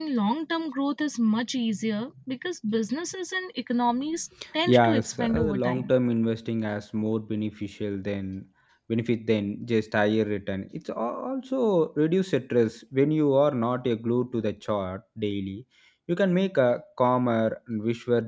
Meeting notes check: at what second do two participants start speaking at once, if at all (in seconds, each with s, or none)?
4.7 s